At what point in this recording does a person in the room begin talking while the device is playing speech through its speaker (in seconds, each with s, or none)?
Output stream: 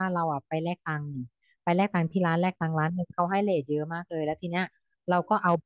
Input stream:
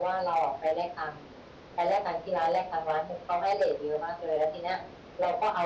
none